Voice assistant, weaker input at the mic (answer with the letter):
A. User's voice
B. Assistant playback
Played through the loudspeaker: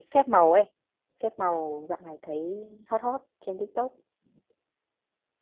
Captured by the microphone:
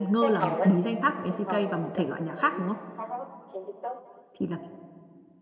B